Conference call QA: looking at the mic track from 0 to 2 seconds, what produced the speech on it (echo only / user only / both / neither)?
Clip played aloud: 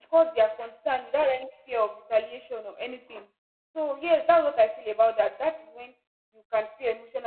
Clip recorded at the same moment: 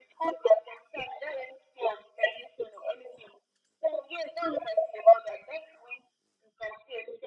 echo only